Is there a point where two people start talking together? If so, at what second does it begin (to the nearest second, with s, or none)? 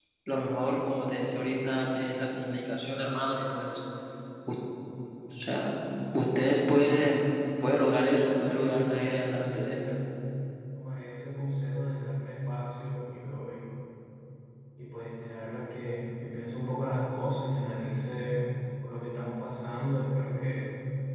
8 s